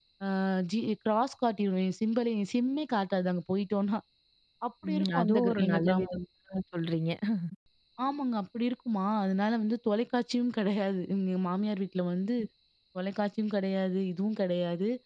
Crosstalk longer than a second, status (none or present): present